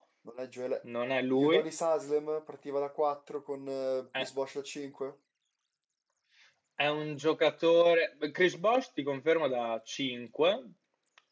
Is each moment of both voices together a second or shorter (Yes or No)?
Yes